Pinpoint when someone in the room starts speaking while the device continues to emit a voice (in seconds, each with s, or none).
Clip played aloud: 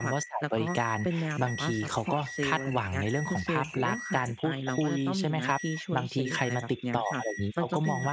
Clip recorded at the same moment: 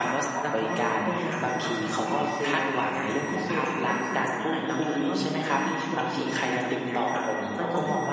none